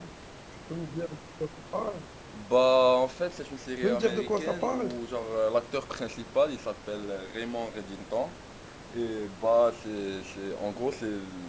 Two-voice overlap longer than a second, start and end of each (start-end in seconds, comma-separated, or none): 3.7-4.9